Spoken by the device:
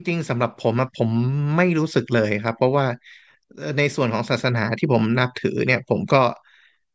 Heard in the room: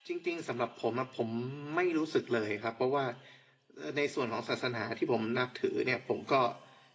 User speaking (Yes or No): No